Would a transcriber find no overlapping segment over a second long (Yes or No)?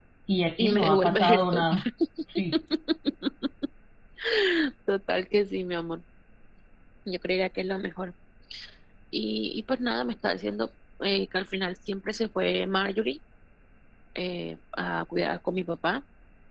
No